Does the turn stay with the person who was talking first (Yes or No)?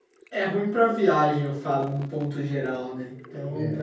Yes